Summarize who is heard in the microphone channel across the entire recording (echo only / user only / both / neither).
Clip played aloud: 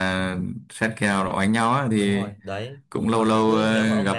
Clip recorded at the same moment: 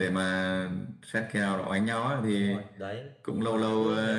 echo only